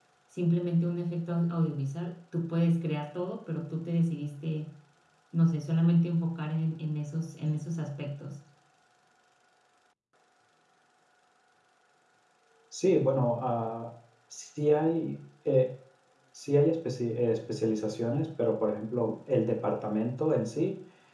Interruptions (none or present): none